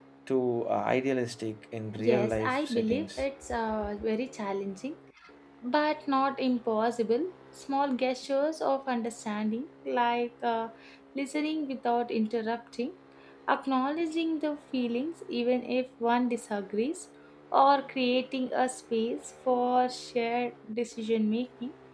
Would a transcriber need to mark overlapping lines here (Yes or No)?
Yes